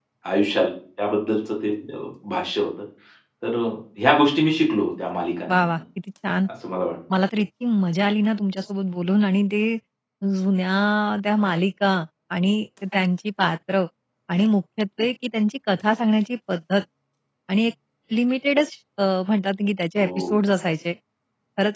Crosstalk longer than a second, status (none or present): none